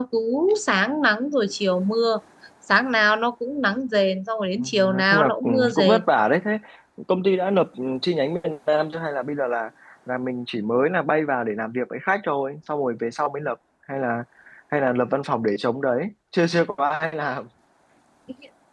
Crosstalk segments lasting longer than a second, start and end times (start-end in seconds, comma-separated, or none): 4.6-6.0